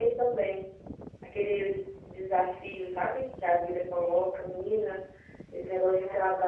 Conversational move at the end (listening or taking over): listening